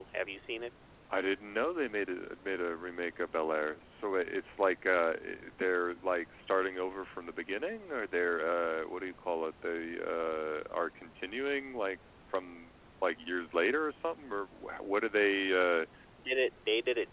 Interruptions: none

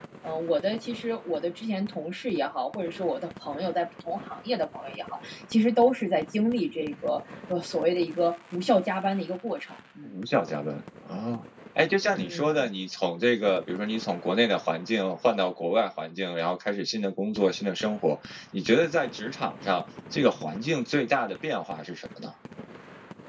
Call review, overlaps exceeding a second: none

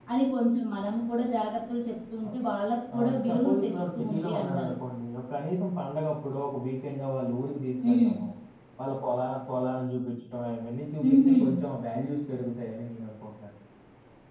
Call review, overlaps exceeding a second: present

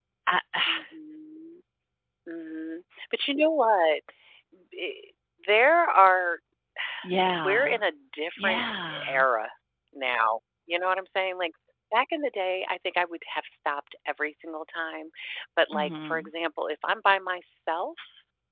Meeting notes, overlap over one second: none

